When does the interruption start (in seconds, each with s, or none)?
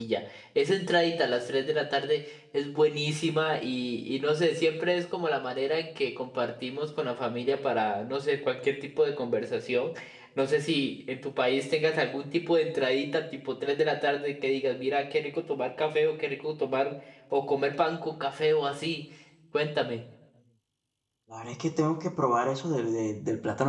none